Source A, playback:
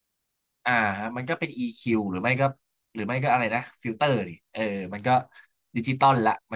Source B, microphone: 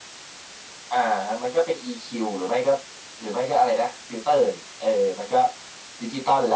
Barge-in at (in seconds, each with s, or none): none